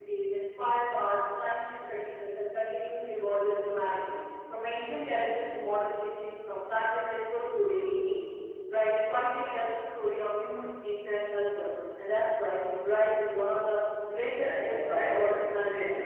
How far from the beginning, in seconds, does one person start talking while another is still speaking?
14.3 s

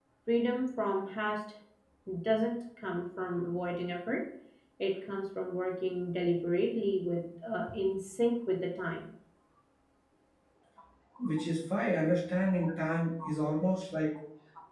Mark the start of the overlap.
none

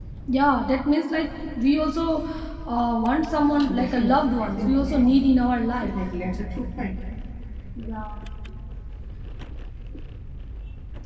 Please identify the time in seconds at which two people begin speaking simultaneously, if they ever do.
3.7 s

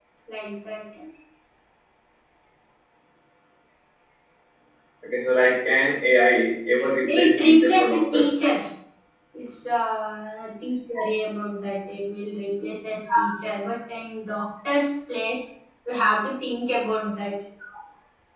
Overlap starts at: 6.8 s

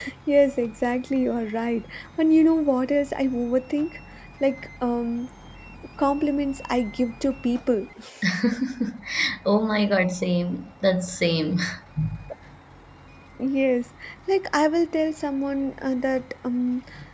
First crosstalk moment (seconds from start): none

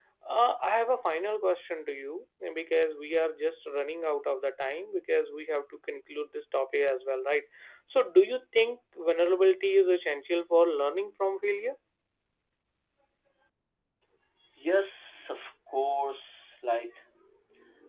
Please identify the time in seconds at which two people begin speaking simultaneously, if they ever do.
none

